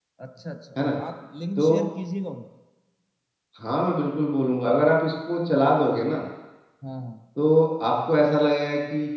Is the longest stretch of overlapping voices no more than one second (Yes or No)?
Yes